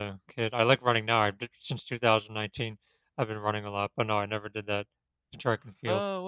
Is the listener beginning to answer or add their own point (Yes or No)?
Yes